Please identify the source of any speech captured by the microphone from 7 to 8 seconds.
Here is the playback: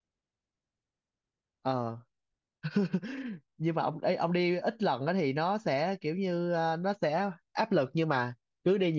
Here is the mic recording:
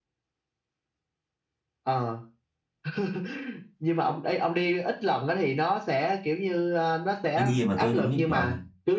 both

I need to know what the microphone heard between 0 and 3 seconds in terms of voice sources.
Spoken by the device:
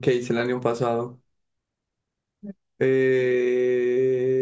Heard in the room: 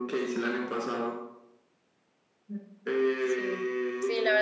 echo only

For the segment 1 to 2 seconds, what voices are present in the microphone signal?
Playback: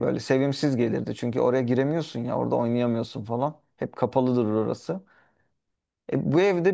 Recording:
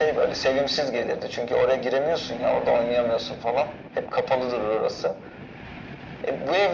echo only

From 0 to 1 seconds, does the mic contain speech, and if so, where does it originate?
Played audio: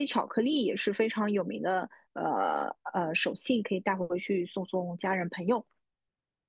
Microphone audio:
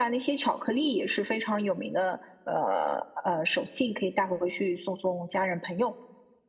echo only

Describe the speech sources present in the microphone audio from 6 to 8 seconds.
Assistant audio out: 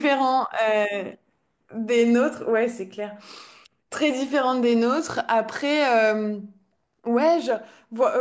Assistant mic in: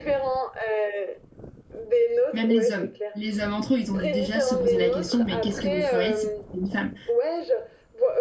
both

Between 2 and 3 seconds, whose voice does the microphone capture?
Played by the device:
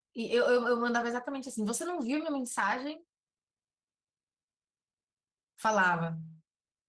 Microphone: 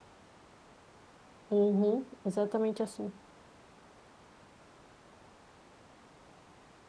user only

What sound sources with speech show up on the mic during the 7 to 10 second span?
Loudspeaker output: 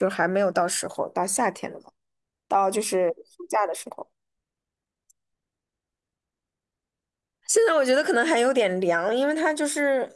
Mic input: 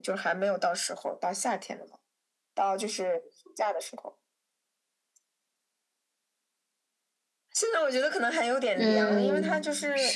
both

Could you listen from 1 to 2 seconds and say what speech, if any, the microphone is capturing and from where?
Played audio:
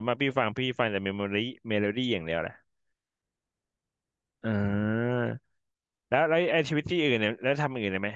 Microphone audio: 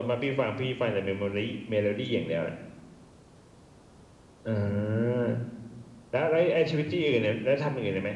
echo only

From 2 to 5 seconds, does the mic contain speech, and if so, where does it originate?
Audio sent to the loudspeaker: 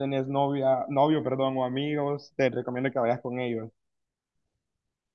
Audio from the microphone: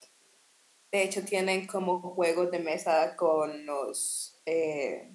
user only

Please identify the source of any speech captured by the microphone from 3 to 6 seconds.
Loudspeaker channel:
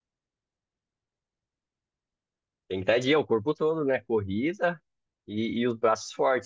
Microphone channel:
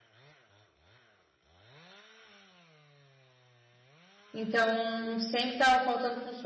user only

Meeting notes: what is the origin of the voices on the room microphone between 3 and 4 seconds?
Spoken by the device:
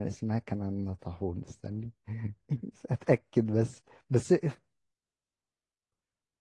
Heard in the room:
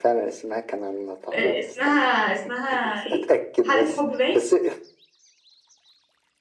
both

